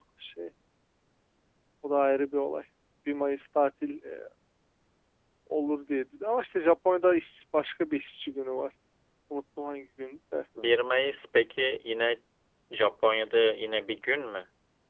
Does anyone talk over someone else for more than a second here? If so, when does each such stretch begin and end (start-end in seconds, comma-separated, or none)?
none